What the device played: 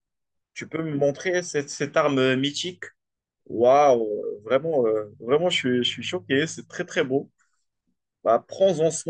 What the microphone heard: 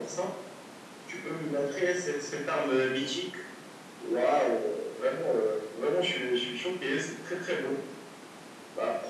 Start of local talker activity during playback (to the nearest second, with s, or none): none